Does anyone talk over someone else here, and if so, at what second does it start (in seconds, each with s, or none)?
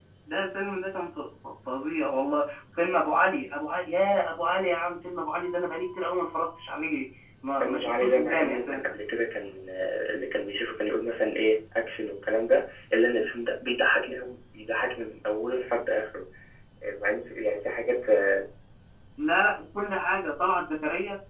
7.6 s